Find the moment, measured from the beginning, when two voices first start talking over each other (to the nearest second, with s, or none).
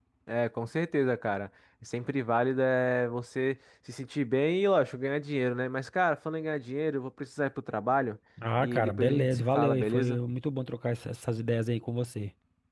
9 s